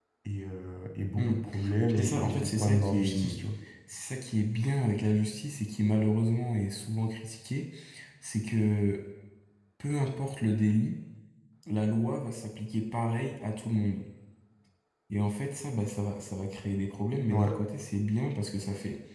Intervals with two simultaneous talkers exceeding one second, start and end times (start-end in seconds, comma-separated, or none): 2.0-3.4